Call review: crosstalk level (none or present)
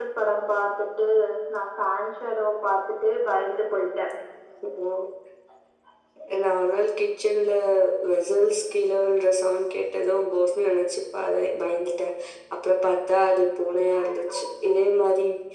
none